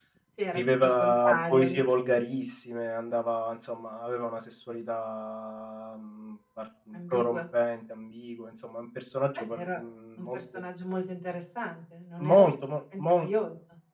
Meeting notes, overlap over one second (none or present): present